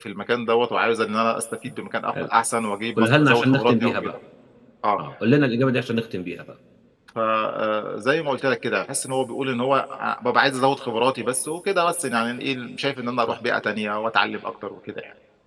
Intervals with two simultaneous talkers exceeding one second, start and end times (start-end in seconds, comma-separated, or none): 3.0-4.2